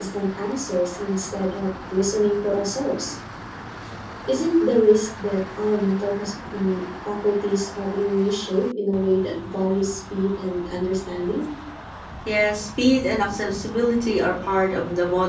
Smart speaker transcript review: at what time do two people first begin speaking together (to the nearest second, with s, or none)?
none